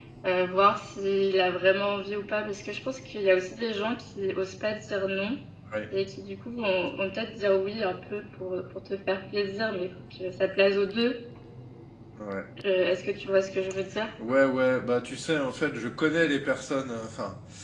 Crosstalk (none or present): none